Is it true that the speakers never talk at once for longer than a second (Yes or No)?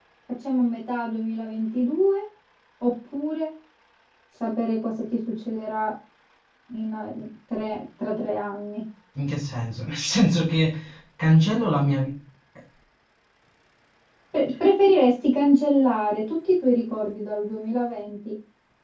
Yes